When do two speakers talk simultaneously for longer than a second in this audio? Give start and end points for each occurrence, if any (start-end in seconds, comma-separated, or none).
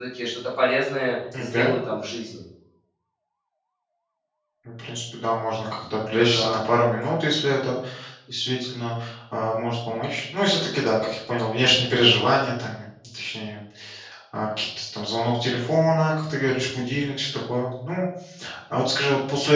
none